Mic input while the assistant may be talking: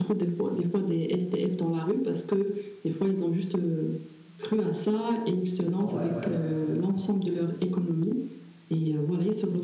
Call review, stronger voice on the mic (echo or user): echo